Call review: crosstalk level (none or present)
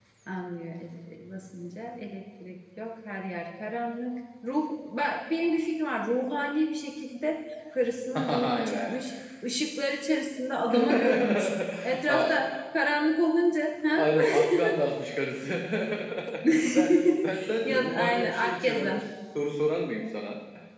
present